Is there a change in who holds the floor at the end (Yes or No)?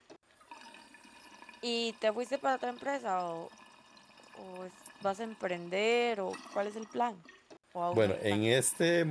Yes